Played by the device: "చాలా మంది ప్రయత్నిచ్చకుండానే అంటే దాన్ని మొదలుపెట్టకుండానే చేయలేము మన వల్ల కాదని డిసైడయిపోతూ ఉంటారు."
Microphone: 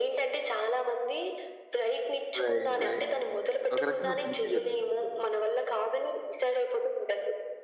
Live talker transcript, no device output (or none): రైట్ రైట్. ఒక రకంగా మంచే జరిగింది.